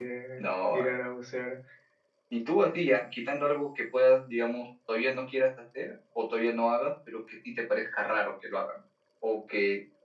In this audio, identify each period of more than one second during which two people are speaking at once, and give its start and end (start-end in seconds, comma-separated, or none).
none